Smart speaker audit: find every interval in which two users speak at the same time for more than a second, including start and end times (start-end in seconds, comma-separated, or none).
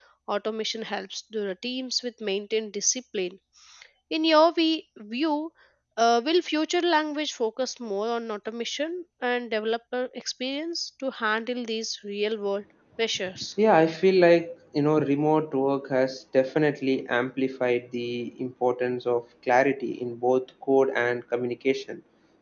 none